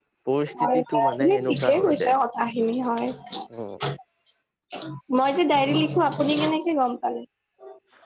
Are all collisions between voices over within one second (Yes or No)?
No